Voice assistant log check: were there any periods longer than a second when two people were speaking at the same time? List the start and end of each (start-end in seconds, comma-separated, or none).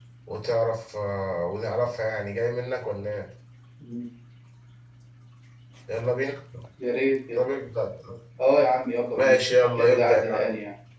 9.1-10.4